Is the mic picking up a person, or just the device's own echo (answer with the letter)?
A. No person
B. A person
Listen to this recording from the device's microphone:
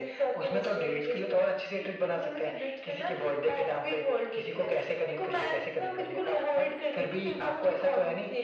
A